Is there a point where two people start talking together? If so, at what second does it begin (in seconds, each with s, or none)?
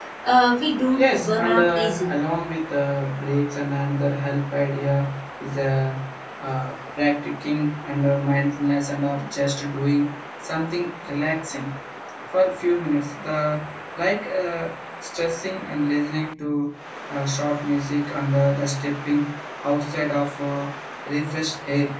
0.9 s